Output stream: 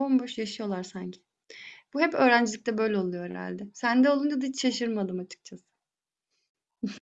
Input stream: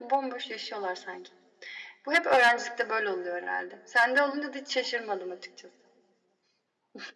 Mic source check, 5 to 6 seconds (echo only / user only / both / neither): echo only